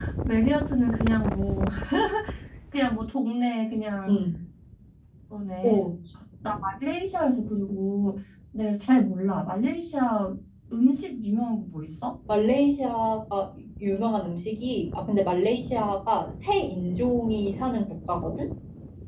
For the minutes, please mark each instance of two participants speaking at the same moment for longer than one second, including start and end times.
none

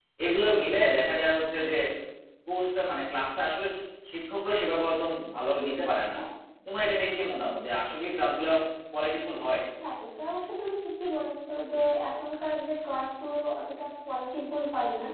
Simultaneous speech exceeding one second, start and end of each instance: none

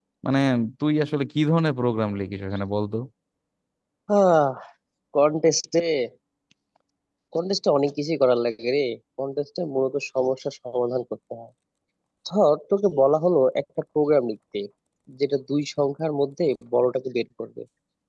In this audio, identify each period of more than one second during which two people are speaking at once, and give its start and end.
none

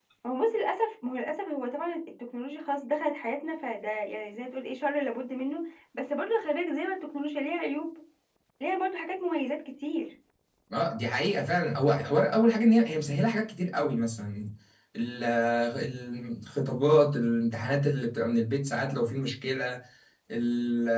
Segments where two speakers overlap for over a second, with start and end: none

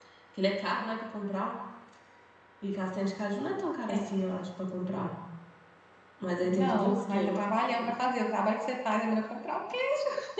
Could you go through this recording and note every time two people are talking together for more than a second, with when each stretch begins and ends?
6.4-7.9

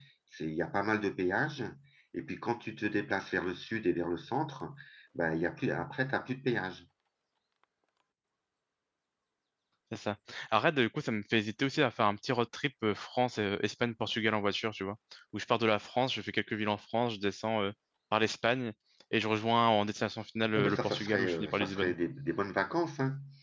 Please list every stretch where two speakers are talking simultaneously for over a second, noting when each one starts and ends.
20.6-21.9

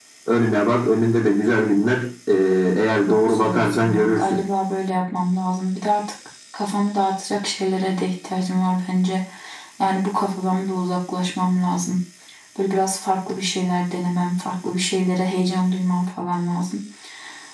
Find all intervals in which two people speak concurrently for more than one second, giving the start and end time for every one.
3.1-4.4

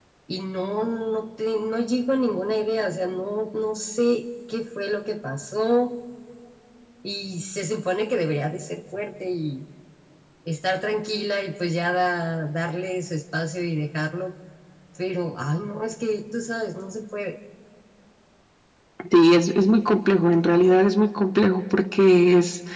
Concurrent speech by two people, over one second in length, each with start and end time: none

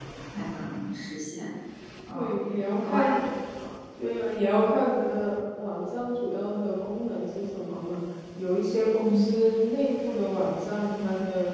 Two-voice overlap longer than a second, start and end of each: none

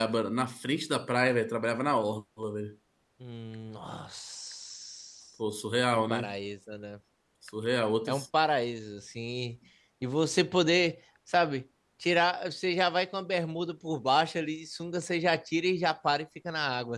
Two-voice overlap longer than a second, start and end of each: none

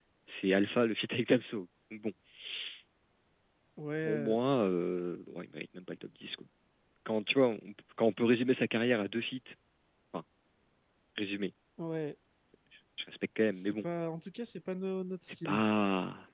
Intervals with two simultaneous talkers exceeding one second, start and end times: none

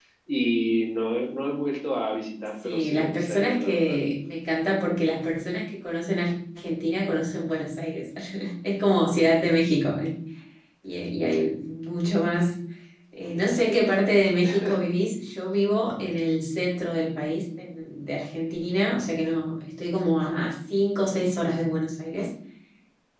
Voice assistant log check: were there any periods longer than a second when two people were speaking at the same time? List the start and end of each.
2.6-4.0

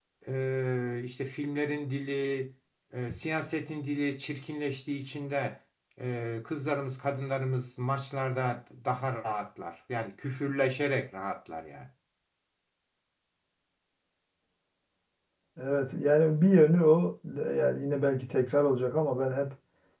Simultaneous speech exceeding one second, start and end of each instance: none

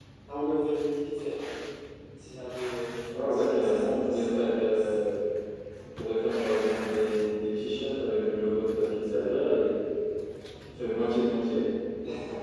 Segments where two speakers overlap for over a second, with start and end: 3.3-4.9

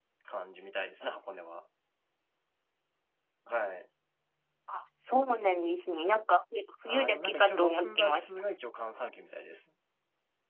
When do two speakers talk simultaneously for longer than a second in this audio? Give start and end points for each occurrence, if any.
6.9-8.4

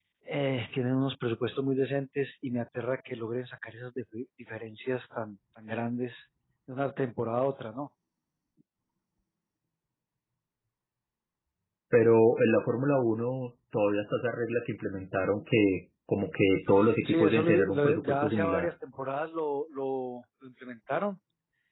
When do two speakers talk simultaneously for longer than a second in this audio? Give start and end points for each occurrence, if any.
17.0-18.7

